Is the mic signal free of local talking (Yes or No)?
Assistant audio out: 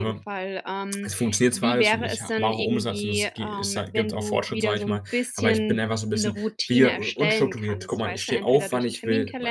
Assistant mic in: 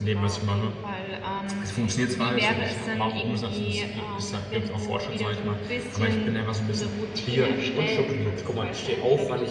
Yes